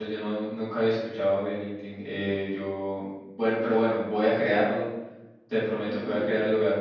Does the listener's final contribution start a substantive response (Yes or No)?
No